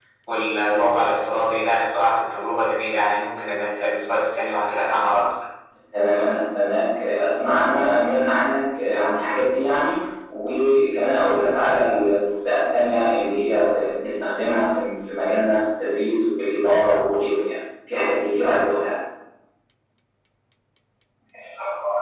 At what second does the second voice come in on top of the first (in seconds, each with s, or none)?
none